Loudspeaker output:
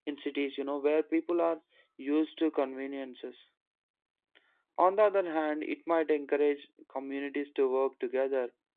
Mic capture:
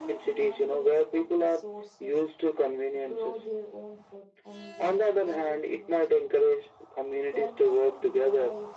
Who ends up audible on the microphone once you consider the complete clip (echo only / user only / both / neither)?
both